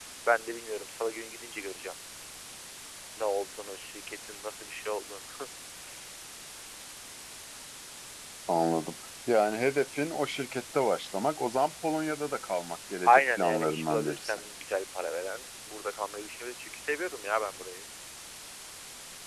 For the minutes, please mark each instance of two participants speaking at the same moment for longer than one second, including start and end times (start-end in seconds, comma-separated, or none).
13.1-14.4